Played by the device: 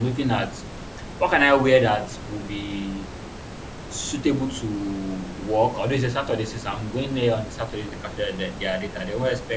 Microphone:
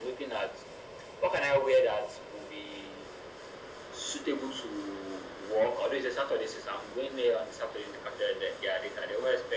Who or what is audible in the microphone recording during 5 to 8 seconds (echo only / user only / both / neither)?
echo only